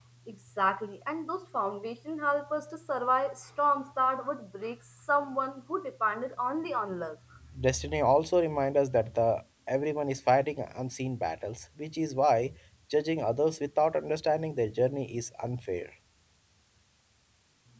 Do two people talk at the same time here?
No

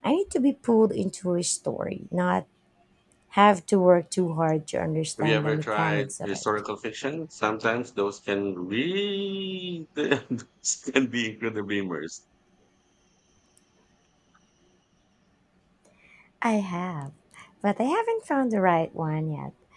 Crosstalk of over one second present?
Yes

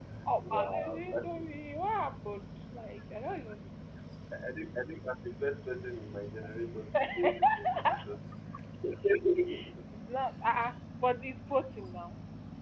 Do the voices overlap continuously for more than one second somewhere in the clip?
Yes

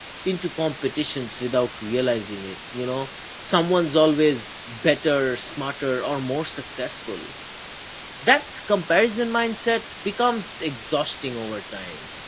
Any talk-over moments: No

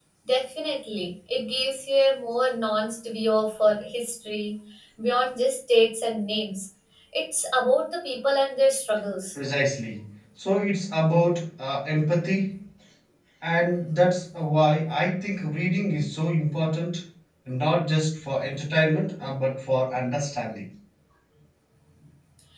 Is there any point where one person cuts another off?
No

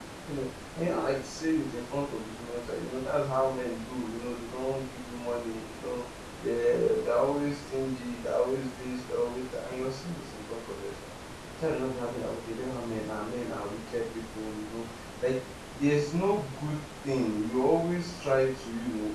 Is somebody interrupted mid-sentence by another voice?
No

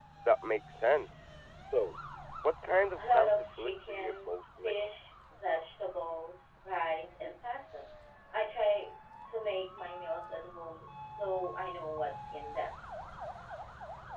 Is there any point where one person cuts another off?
Yes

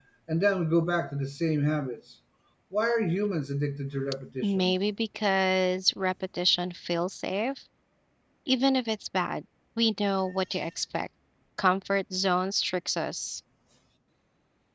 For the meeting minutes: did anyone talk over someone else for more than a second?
No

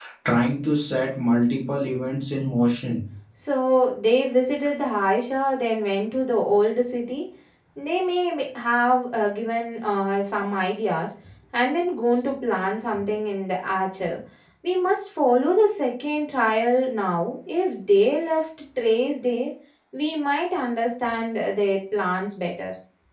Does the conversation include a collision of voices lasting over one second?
No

